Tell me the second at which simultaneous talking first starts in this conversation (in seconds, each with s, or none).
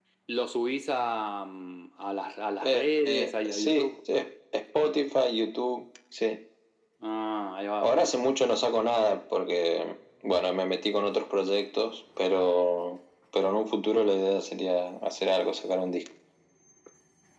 2.6 s